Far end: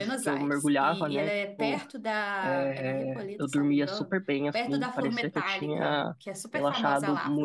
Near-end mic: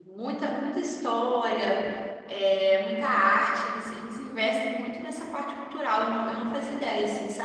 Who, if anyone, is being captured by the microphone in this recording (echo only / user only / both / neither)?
user only